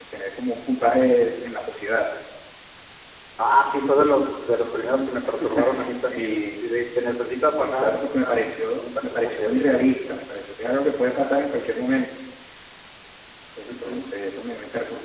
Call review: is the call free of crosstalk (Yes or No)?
No